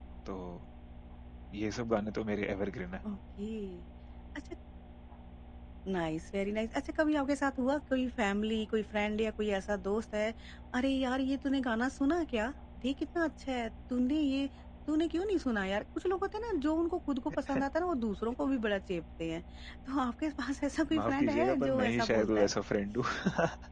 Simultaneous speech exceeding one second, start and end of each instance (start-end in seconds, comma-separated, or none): 21.0-22.5